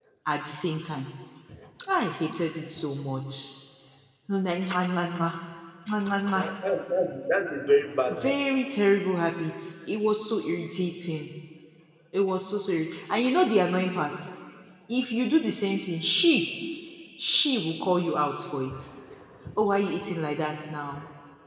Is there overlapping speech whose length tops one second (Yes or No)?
No